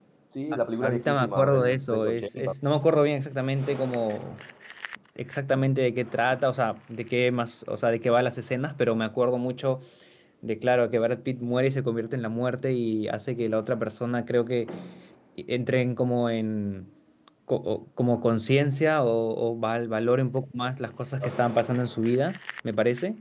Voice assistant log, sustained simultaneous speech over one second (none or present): present